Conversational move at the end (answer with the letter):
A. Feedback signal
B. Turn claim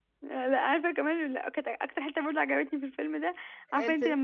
A